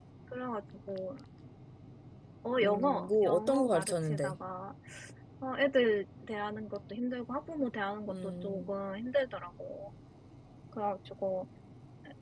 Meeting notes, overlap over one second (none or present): present